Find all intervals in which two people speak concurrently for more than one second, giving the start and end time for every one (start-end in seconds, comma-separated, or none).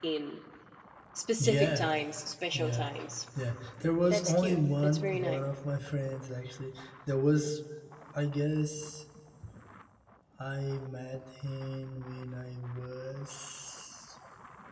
4.1-5.3